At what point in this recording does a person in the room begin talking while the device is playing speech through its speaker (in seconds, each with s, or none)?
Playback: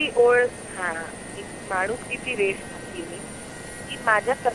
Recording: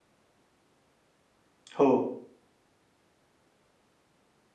1.8 s